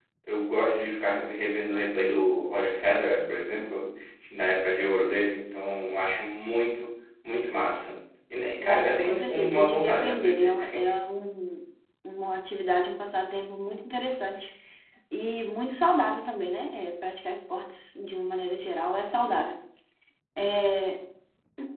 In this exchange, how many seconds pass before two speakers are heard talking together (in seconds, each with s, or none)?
8.6 s